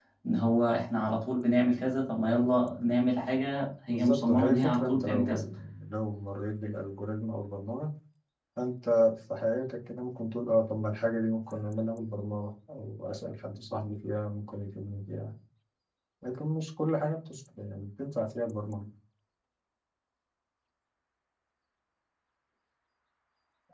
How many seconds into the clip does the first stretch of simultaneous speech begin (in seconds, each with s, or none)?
3.9 s